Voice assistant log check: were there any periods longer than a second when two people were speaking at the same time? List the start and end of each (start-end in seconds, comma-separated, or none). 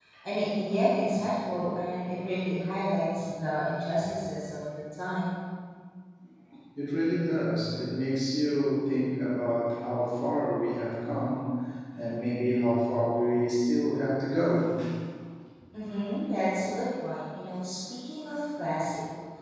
none